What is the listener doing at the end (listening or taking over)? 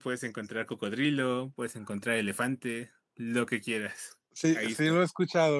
taking over